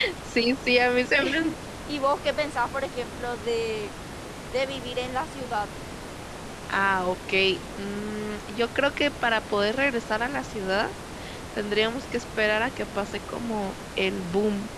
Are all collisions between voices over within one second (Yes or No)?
Yes